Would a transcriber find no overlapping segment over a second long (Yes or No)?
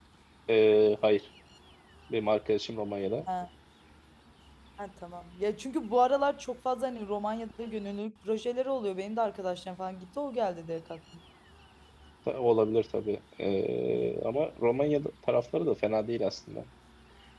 Yes